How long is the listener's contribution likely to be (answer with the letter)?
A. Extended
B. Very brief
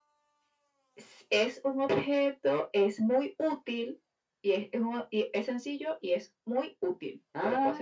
A